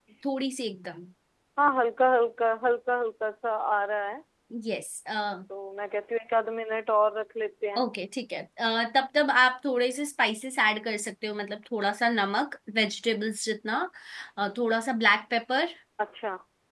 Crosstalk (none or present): none